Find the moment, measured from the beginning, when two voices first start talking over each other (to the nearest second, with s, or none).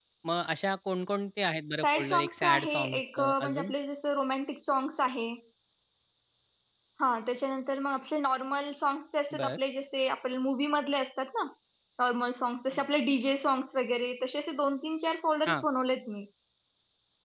2 s